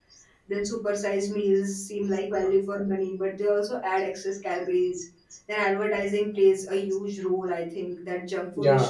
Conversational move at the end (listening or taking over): listening